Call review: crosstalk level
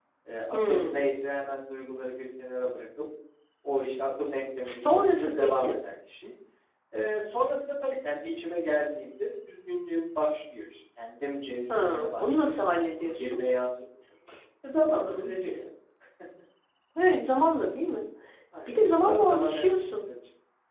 present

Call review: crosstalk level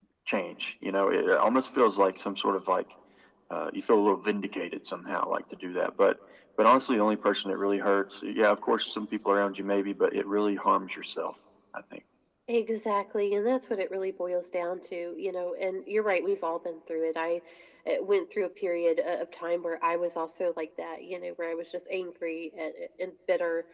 none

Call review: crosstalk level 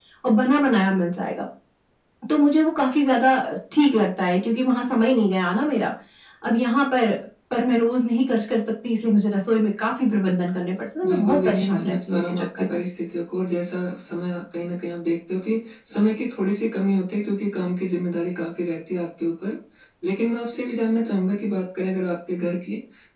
present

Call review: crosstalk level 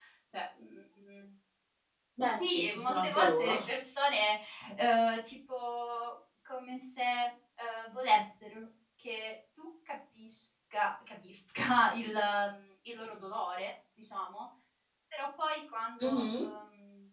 present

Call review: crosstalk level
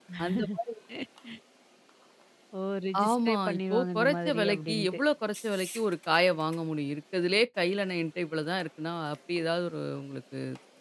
present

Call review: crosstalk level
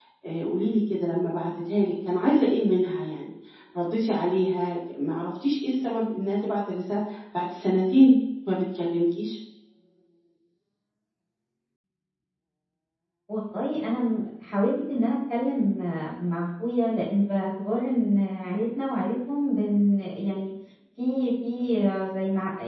none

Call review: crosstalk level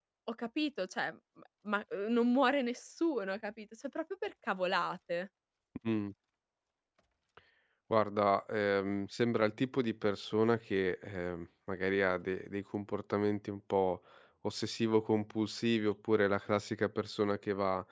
none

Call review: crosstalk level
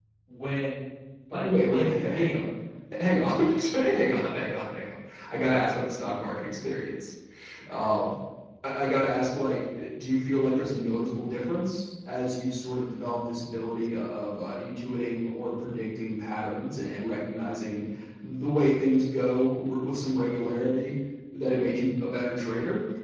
present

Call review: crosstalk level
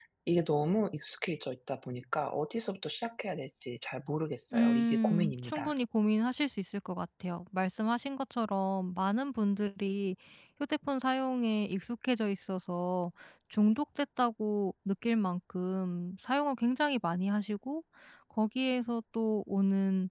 present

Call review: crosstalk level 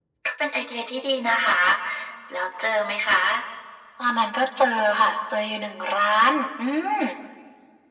none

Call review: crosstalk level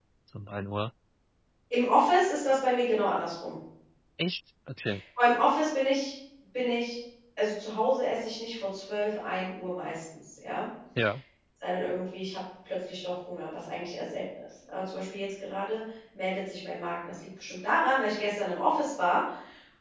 none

